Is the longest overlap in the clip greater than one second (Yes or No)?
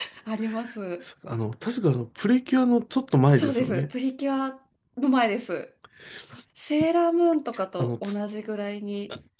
No